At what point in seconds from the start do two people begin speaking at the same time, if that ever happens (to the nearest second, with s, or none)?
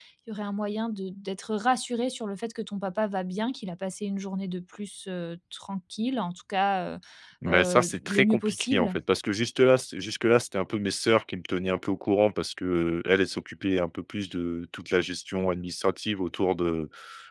7 s